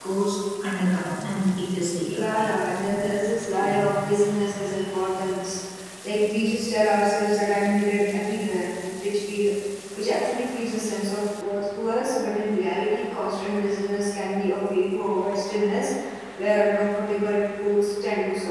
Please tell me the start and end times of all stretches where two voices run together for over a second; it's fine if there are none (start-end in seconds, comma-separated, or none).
none